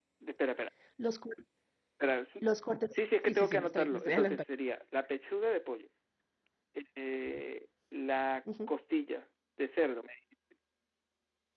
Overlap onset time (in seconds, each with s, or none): 2.9 s